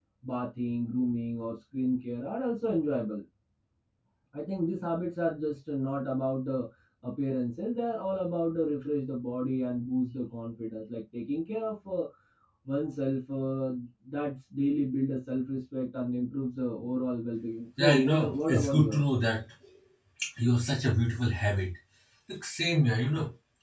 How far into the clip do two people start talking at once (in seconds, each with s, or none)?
17.8 s